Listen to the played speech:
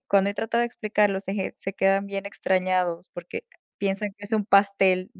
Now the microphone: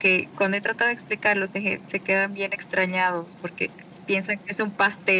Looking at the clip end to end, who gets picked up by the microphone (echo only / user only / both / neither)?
echo only